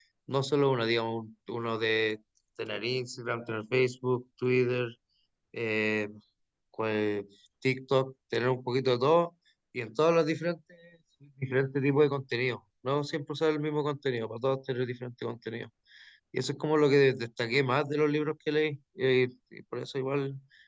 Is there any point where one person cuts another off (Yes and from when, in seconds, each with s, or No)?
No